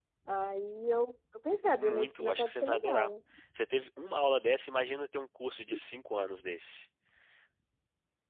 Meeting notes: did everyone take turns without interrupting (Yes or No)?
No